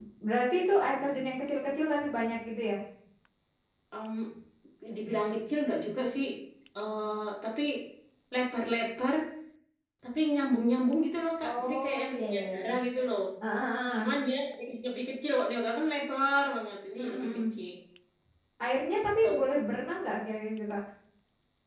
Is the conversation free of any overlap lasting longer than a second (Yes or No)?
No